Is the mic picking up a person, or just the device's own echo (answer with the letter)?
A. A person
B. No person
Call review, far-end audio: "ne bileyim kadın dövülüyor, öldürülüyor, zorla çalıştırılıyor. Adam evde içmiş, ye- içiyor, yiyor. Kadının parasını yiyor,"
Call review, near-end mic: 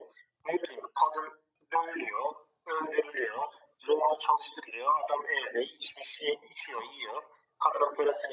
B